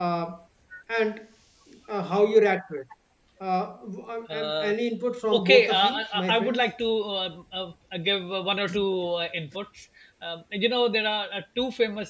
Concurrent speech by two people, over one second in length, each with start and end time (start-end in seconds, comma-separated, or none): 5.3-6.6